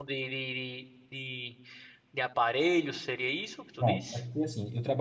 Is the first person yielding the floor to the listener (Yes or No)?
Yes